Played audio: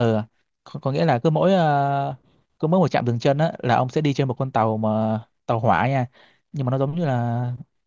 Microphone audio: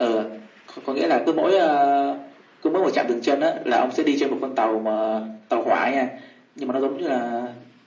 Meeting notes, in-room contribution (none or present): none